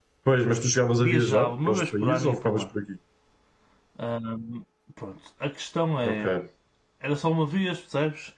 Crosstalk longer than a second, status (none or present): present